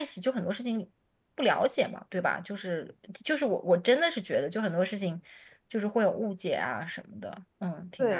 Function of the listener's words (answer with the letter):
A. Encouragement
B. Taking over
B